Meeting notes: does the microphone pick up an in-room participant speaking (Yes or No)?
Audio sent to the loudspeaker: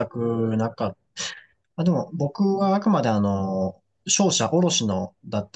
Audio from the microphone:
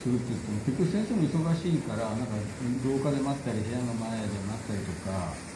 Yes